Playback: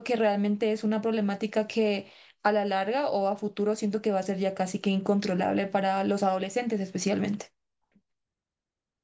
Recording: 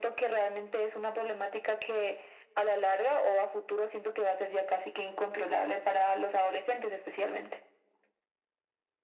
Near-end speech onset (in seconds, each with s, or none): none